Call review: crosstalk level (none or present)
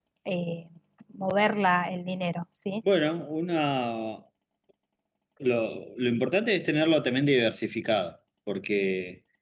none